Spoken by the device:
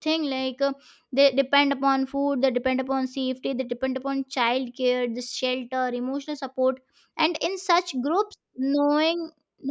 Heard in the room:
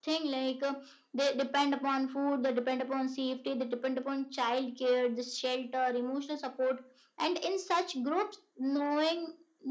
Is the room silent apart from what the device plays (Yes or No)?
Yes